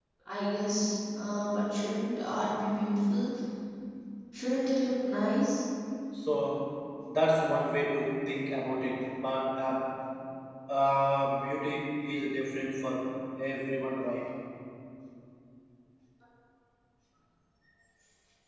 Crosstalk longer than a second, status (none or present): none